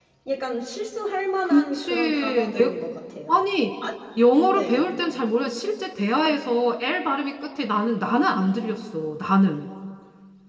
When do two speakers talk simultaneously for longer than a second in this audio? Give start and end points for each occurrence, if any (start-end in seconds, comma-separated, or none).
1.4-2.8